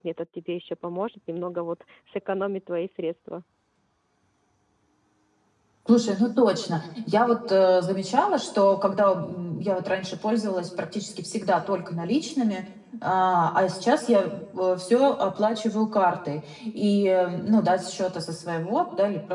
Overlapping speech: No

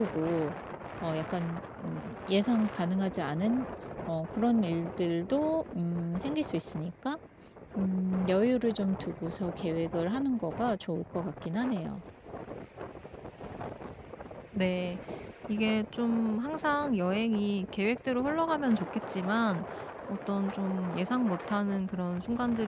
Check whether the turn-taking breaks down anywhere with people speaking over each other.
No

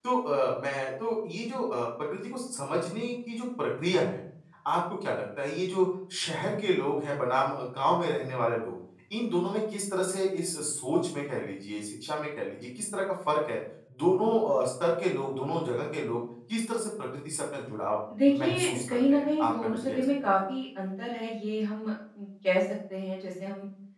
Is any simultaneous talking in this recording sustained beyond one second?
Yes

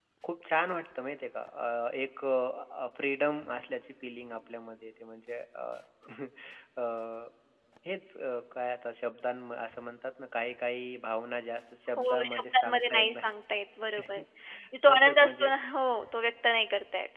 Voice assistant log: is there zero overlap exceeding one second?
No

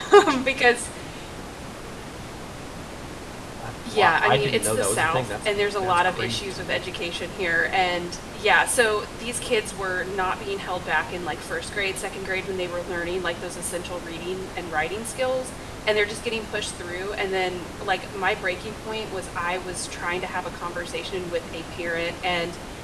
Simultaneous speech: Yes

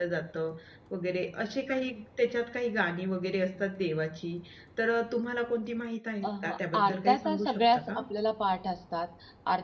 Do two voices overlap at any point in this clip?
Yes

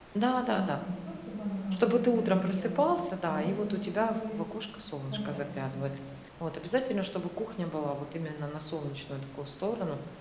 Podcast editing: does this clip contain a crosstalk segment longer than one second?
Yes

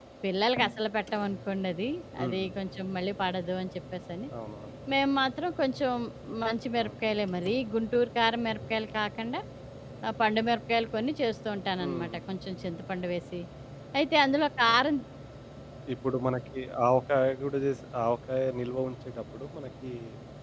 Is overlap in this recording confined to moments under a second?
Yes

